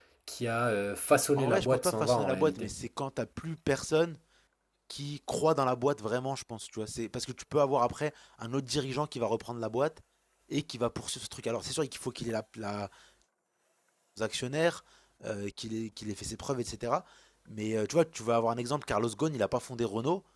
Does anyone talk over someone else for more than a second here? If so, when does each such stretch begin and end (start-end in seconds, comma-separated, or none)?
1.4-2.7